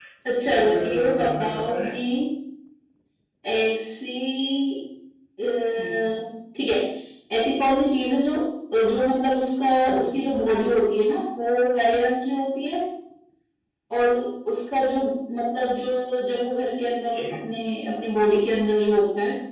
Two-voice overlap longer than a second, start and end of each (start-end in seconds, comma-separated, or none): 0.5-1.9